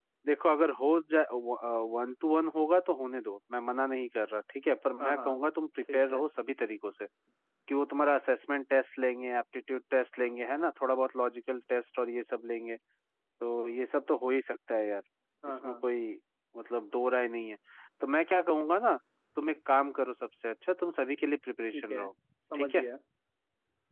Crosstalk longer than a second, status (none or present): none